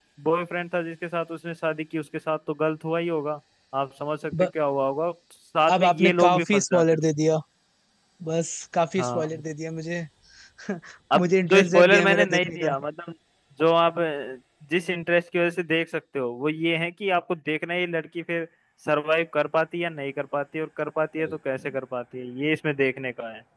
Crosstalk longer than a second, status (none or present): present